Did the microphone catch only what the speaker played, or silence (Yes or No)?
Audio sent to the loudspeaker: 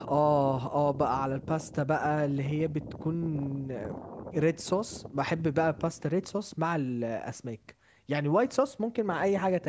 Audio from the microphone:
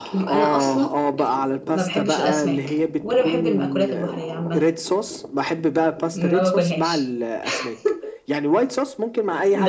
No